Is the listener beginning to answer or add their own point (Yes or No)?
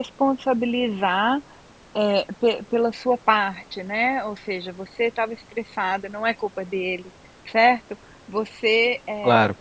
No